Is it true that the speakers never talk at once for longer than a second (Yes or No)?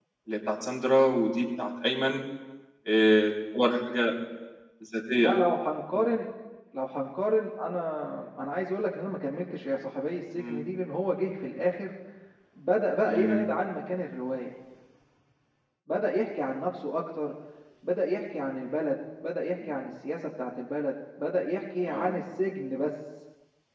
Yes